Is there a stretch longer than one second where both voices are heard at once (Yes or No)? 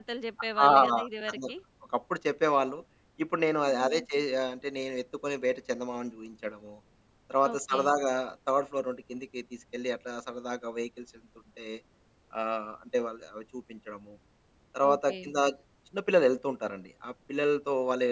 No